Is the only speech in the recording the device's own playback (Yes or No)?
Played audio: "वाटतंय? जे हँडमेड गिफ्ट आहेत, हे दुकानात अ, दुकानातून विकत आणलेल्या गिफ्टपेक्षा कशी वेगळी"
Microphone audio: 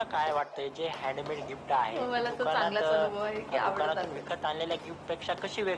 No